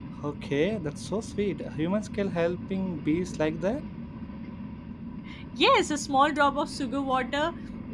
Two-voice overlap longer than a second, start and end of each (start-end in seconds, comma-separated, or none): none